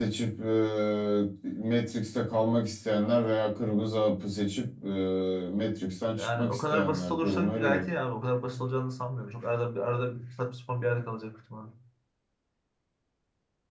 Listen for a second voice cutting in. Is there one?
Yes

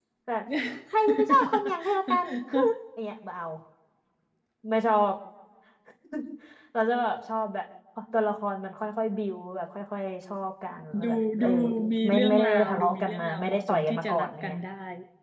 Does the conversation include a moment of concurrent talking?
Yes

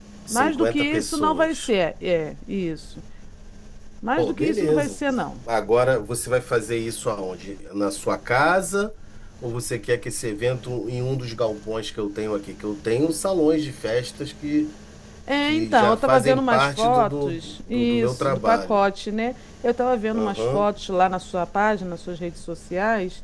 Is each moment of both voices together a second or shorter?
No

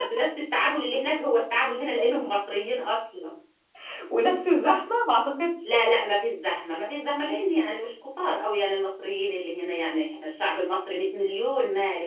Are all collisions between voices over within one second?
Yes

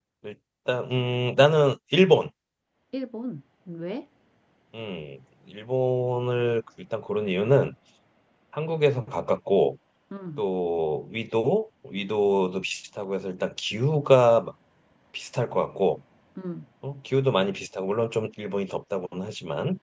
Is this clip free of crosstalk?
Yes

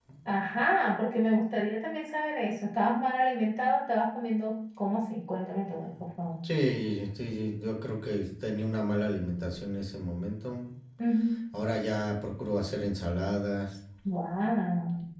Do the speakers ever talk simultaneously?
No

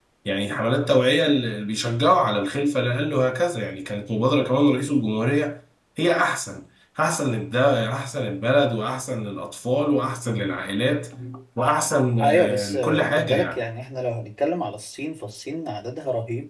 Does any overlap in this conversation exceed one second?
Yes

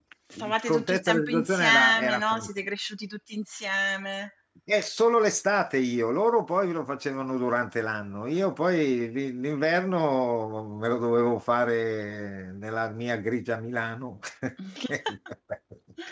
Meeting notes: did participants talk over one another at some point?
Yes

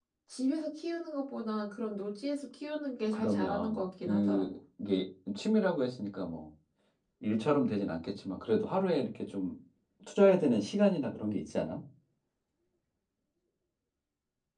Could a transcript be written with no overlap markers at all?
No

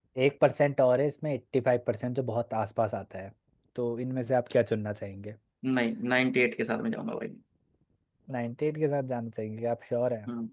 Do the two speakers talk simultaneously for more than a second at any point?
No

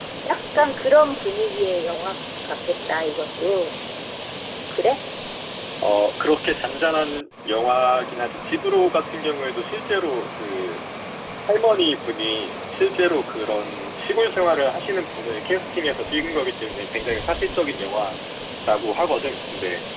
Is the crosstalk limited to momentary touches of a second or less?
Yes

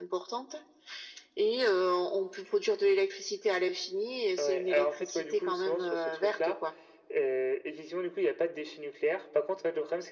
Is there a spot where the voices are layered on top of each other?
Yes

